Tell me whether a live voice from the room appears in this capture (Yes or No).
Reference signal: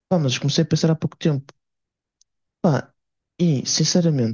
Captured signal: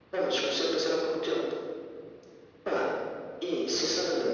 No